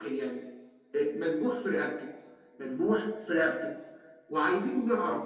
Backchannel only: Yes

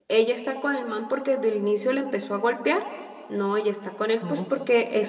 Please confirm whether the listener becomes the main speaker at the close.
No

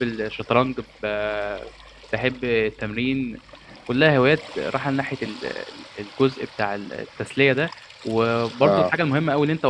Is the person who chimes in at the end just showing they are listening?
Yes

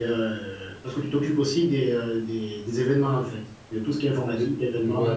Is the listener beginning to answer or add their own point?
Yes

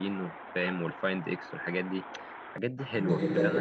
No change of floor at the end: No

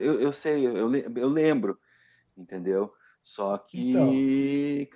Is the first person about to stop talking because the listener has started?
No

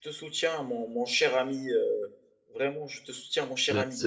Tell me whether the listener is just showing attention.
No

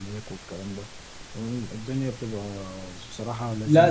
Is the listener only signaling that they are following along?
No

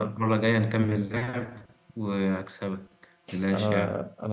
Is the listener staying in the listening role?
No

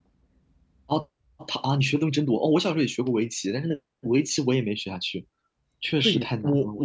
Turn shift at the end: Yes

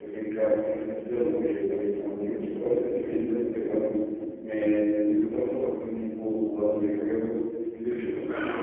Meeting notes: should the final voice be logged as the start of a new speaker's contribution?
No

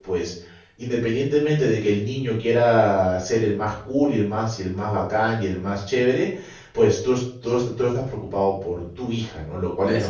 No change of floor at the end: Yes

